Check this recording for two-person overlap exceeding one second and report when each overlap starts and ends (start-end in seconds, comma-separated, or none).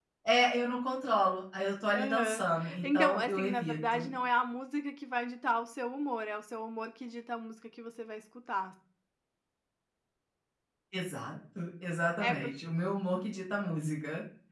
2.8-4.1